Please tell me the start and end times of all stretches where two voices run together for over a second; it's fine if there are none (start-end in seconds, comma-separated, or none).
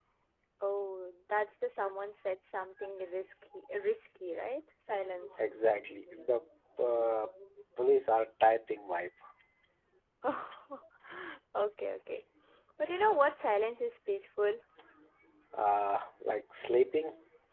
none